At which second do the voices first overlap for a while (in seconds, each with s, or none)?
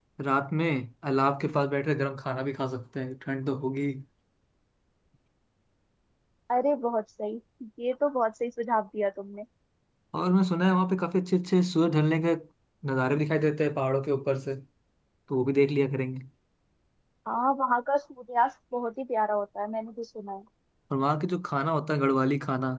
none